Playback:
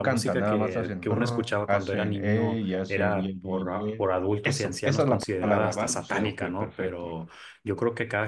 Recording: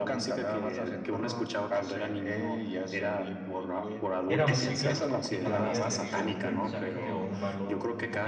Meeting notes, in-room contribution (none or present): present